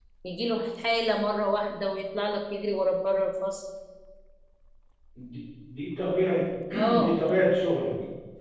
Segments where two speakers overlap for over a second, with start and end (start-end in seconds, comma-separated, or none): none